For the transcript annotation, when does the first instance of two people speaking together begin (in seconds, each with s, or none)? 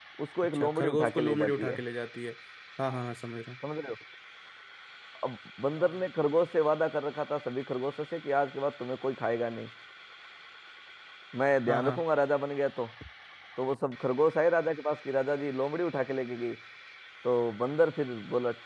0.5 s